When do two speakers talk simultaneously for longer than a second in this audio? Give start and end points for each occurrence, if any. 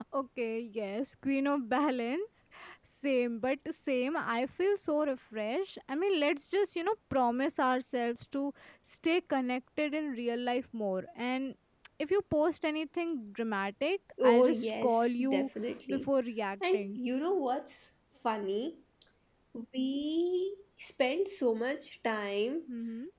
14.2-15.5

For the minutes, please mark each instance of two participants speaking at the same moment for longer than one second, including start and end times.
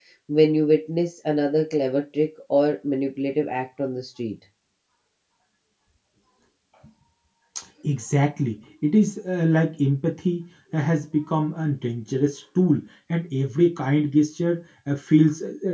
none

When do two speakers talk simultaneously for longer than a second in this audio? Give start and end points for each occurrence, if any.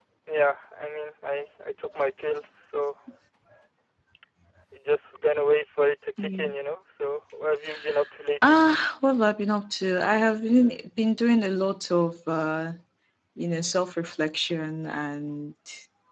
none

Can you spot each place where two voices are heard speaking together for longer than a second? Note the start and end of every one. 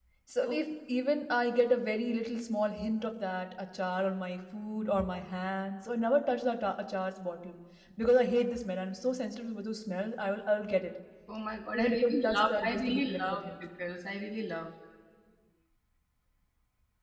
11.7-13.4

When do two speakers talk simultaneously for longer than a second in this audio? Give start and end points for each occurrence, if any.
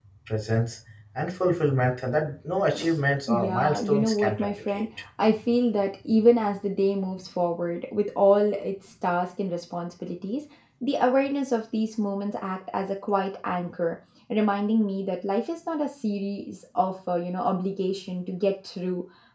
3.3-4.8

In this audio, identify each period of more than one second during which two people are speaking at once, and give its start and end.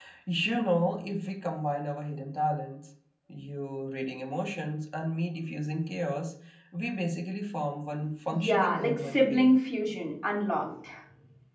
8.3-9.6

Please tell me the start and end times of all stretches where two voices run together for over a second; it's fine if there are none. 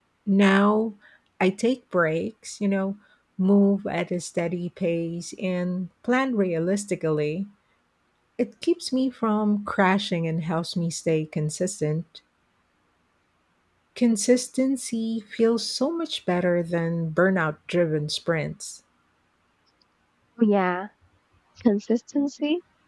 none

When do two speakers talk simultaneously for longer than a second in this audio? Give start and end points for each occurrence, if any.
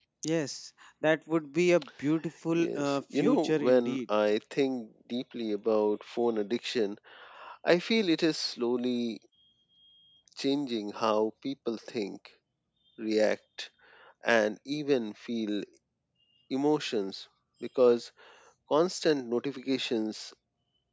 2.6-4.0

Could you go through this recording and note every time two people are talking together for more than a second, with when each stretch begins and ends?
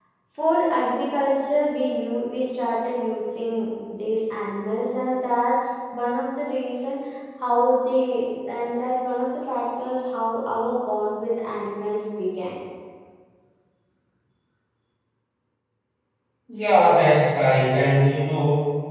none

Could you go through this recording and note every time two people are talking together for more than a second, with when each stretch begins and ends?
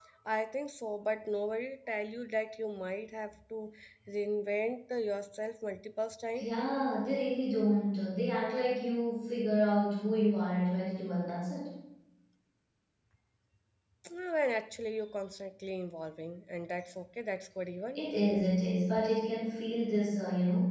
none

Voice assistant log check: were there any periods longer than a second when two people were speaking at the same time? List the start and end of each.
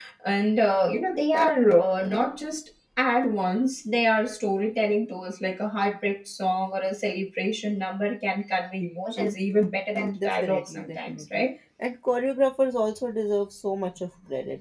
10.2-11.4

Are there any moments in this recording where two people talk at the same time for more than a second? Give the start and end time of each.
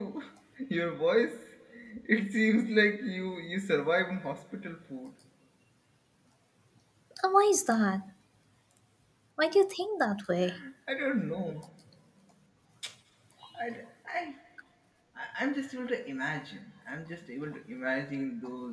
none

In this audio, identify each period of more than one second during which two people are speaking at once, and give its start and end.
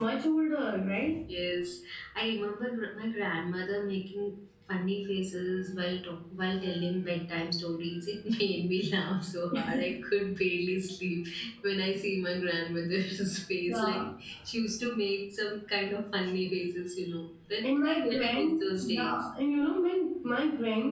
17.8-19.2

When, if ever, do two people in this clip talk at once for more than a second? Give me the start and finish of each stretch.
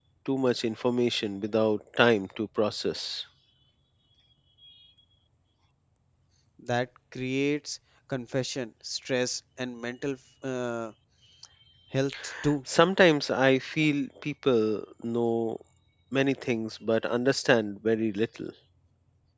none

